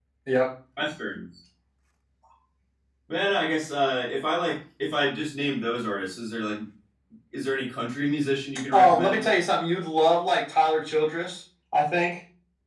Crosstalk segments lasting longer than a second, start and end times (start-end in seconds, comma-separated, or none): none